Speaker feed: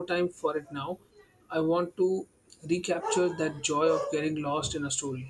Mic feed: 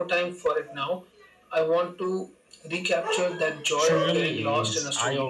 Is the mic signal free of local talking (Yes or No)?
No